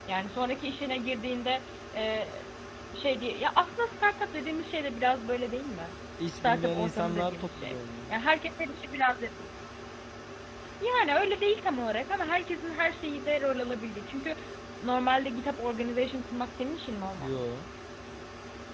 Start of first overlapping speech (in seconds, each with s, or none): 6.2 s